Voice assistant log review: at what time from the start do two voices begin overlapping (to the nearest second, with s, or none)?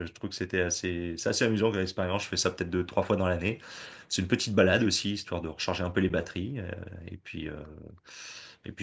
none